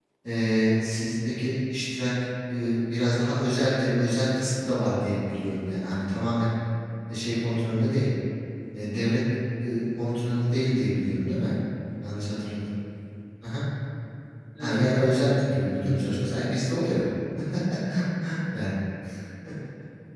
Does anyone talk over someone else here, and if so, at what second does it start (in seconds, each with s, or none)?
14.6 s